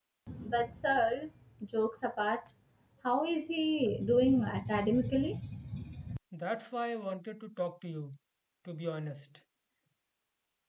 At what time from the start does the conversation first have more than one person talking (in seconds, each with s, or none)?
none